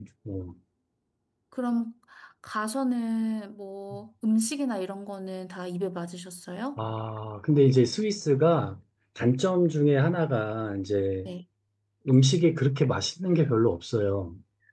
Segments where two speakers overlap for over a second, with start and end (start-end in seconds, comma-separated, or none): none